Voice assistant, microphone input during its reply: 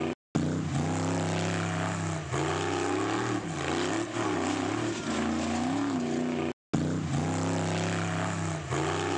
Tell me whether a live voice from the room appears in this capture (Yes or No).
No